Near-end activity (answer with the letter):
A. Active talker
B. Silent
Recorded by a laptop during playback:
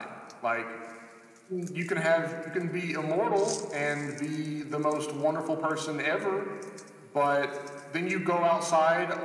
B